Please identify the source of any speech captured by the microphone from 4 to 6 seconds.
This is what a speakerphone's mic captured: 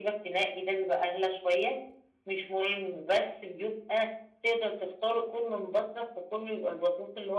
echo only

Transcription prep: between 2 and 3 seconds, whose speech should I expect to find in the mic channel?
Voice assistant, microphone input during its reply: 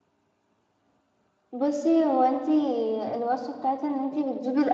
user only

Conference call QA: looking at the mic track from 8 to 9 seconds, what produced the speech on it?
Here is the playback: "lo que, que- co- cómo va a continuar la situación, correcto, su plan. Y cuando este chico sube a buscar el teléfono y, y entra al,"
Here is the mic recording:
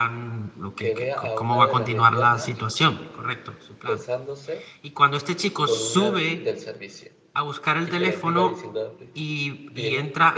both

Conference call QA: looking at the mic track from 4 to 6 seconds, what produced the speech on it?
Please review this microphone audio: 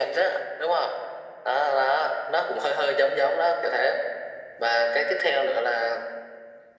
echo only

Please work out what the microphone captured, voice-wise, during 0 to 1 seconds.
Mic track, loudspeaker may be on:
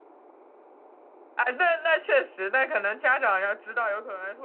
neither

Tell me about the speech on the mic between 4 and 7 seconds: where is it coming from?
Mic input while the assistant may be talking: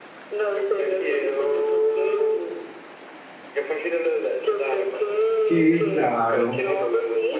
both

